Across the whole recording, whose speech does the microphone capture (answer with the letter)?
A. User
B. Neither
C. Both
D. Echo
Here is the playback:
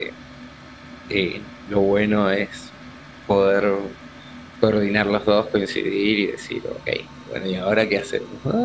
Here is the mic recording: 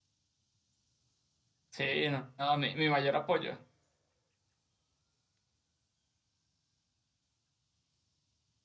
A